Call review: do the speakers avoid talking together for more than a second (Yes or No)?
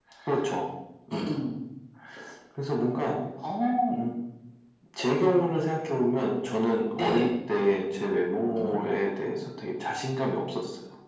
Yes